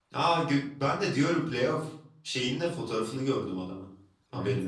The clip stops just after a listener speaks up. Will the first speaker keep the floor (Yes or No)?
No